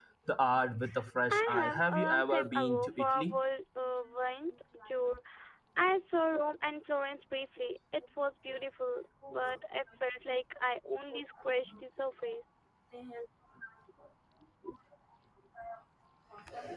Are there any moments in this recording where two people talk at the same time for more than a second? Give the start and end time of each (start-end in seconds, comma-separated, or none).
1.3-3.4